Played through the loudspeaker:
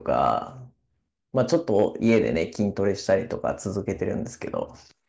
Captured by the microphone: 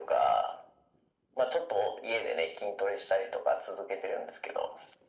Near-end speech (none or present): none